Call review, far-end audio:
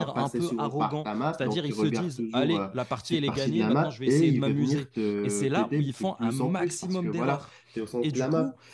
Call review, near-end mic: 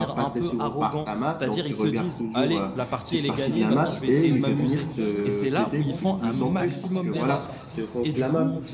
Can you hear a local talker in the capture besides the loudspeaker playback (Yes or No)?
Yes